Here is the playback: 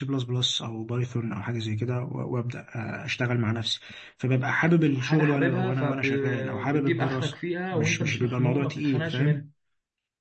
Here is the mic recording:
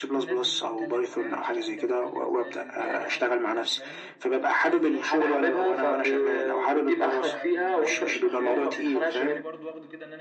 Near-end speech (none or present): present